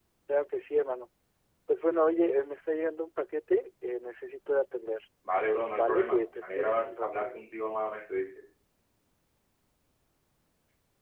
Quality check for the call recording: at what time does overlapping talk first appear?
6 s

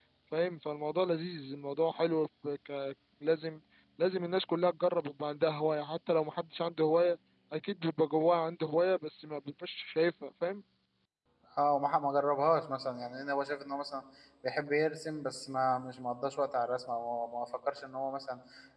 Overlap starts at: none

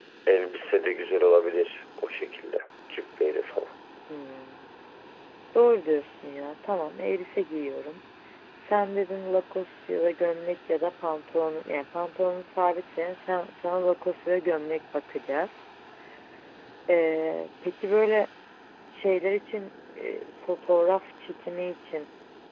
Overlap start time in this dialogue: none

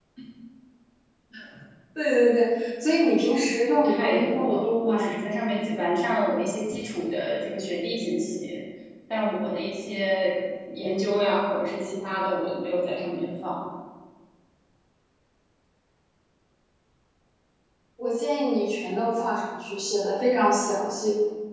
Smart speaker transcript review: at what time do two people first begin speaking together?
4 s

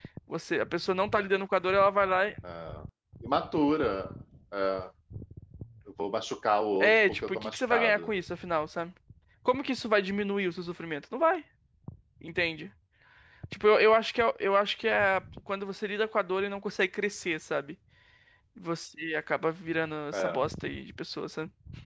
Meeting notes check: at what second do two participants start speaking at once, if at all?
7 s

